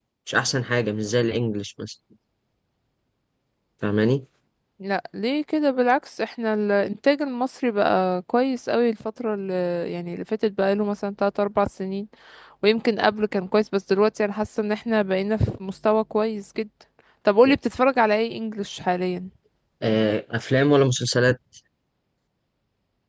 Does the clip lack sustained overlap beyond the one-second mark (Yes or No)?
Yes